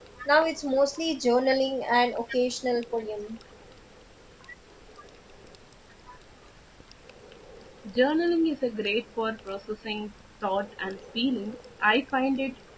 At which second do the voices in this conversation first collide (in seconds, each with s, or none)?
none